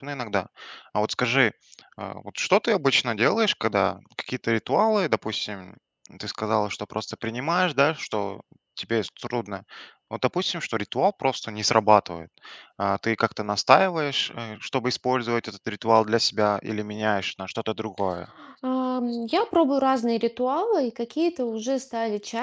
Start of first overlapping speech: none

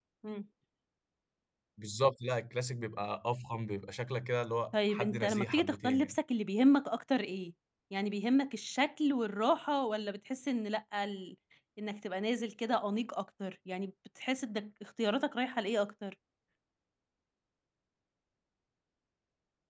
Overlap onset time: 4.7 s

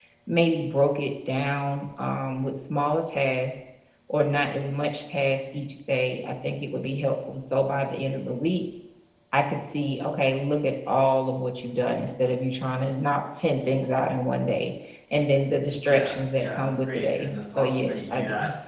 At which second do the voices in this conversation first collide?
15.8 s

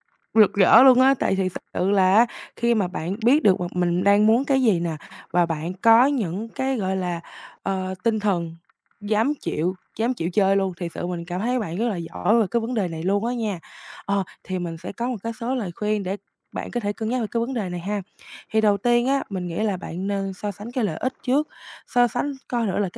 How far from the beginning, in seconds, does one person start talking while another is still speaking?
none

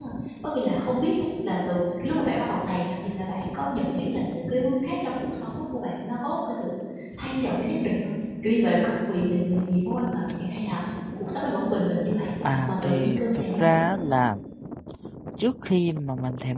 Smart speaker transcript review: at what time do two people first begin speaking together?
12.4 s

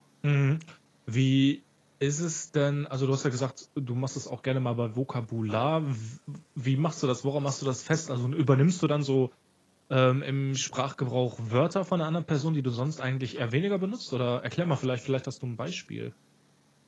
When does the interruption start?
none

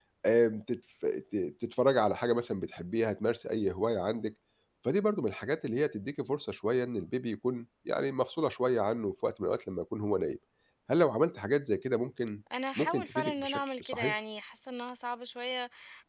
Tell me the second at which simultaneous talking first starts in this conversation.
12.5 s

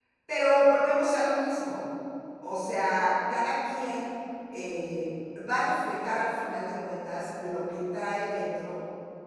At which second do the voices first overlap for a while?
none

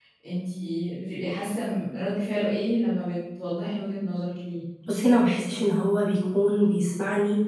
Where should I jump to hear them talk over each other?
none

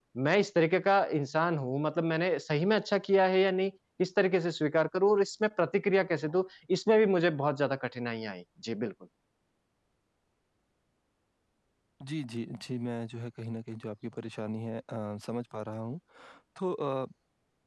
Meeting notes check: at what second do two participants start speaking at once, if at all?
none

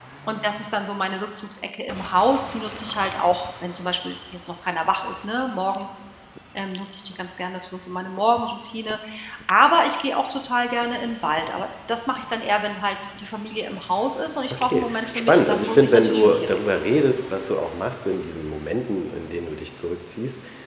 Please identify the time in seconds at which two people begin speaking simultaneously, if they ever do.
14.5 s

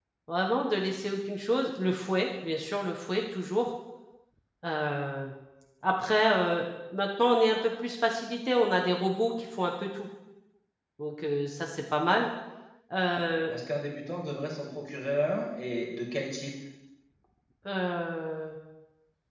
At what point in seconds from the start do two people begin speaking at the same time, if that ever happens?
none

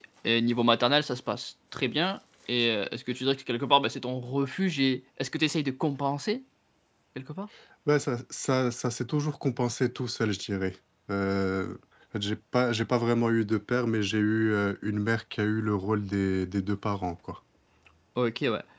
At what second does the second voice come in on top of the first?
none

